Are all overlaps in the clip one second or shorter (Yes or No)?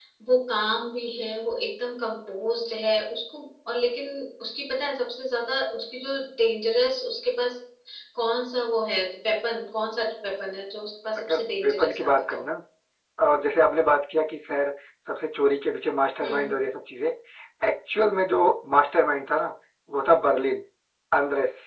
No